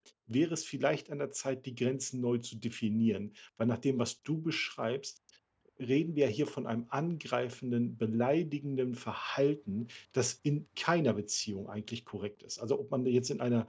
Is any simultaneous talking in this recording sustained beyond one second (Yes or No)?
No